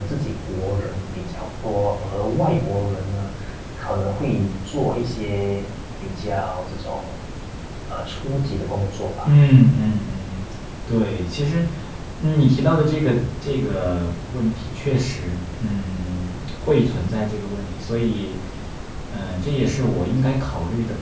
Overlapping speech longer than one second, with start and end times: none

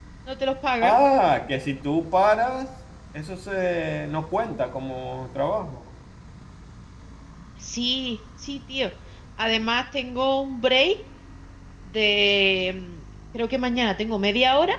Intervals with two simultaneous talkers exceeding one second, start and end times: none

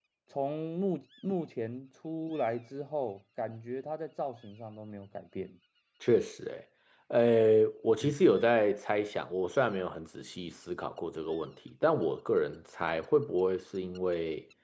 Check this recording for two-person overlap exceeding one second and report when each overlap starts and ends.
none

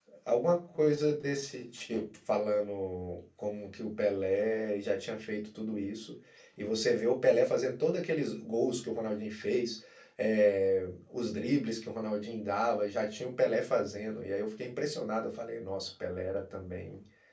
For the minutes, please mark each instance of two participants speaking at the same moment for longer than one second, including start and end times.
none

